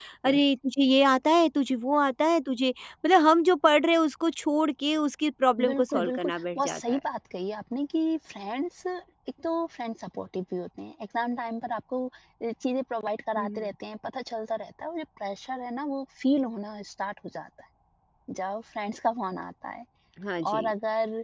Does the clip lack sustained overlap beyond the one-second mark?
No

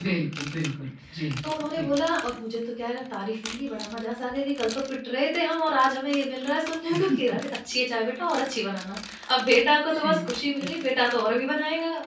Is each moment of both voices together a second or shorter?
Yes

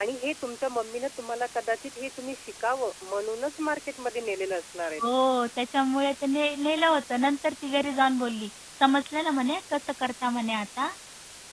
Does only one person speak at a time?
Yes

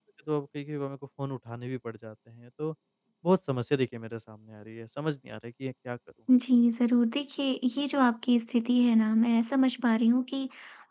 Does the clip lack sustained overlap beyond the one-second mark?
Yes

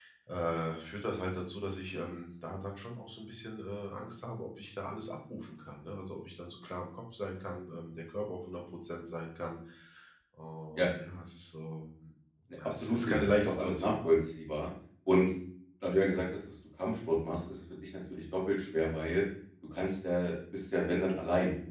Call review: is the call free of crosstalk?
No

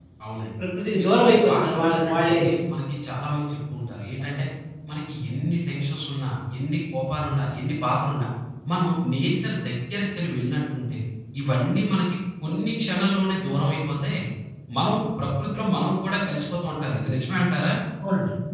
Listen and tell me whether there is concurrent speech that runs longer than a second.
Yes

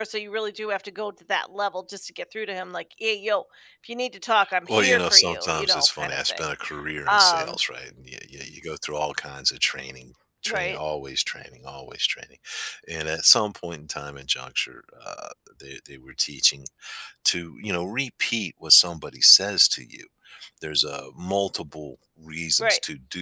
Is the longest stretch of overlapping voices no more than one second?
No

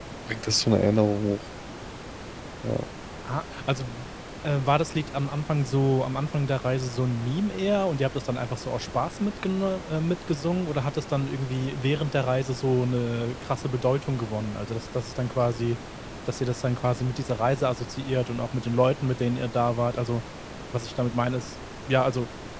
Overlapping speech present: No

